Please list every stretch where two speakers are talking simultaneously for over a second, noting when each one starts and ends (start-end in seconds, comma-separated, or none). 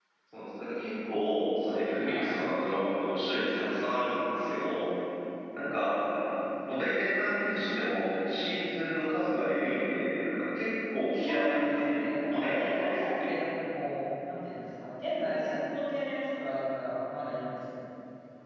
11.1-13.3